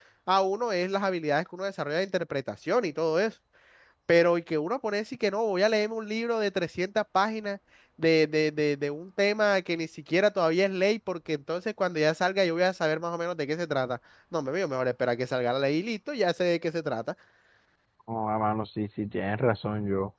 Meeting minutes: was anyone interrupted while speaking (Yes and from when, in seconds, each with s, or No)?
No